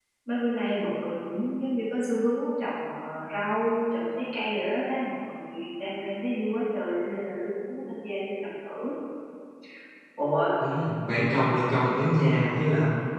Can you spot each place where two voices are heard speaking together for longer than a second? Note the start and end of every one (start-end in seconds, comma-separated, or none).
none